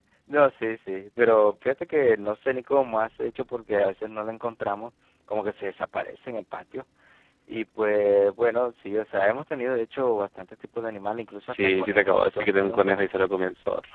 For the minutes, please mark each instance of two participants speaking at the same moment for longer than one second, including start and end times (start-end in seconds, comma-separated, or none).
11.5-13.2